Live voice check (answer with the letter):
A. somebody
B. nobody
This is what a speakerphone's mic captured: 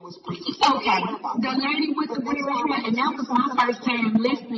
B